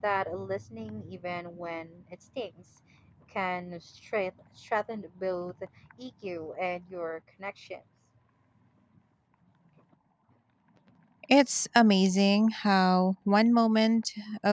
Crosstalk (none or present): none